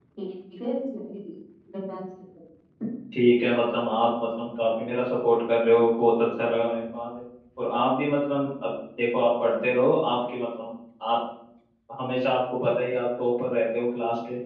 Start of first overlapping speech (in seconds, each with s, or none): none